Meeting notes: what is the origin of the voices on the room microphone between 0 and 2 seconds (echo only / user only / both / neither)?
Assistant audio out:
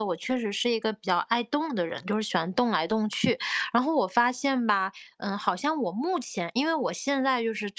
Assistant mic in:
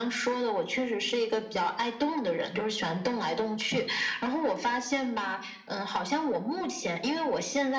echo only